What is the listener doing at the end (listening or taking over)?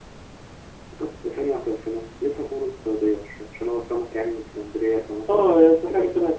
taking over